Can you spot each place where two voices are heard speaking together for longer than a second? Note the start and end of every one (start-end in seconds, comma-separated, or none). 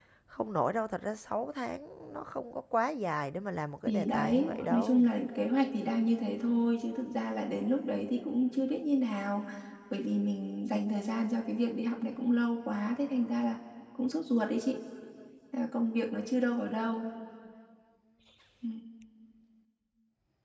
3.9-5.1